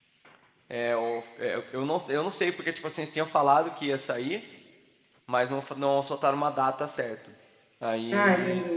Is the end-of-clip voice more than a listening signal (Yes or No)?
No